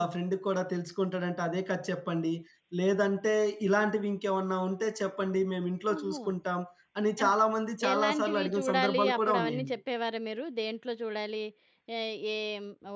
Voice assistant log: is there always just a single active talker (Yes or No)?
No